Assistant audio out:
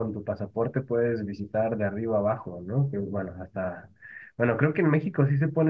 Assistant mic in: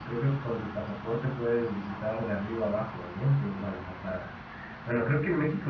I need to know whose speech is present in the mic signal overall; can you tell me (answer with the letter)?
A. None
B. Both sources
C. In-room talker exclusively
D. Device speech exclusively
D